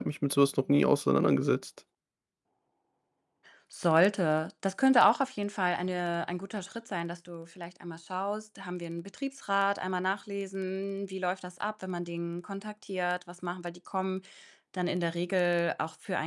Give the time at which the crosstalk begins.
none

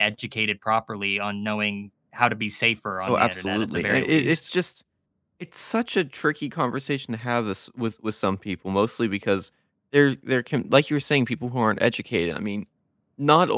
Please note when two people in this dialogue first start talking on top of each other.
3.1 s

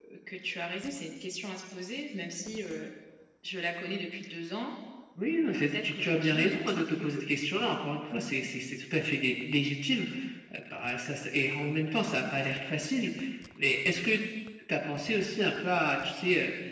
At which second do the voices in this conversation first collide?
5.5 s

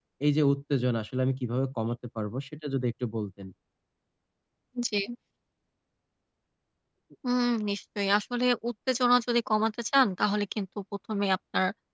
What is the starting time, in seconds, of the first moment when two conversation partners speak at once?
none

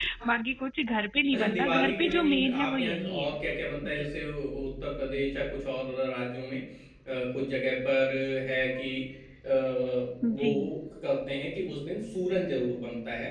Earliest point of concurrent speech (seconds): 1.3 s

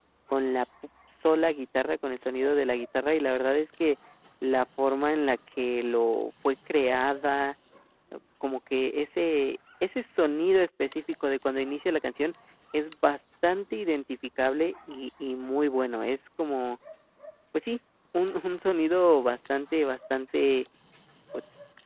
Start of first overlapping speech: none

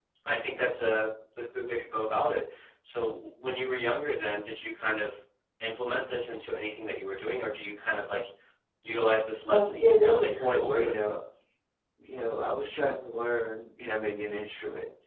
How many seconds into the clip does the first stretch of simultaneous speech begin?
9.5 s

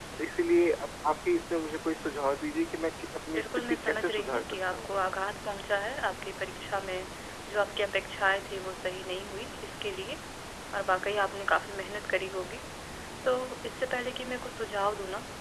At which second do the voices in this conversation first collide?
3.3 s

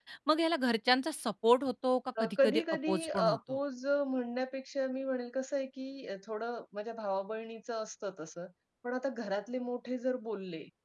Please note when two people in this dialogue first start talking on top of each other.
2.2 s

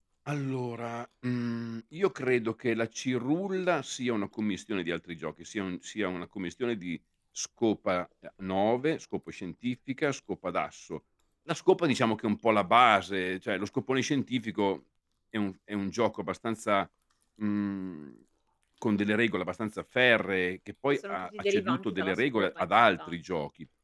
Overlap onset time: 20.9 s

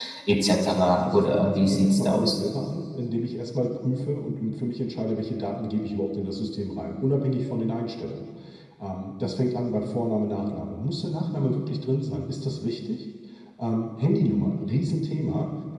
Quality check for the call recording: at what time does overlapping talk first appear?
1.0 s

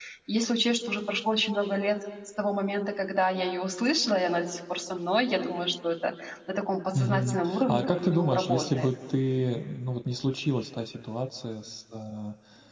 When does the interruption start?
6.9 s

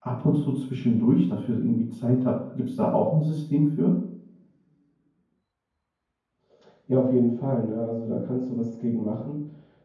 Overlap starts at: none

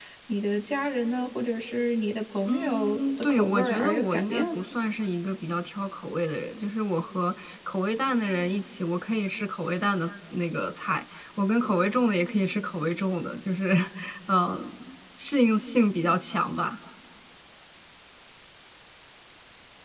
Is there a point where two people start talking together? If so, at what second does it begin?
2.5 s

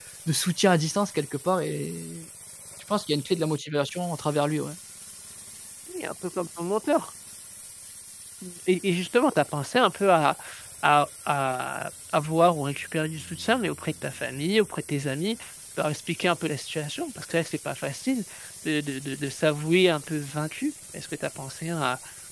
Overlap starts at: none

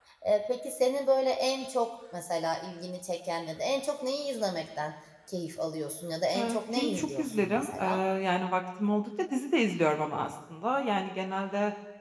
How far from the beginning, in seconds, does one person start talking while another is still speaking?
6.3 s

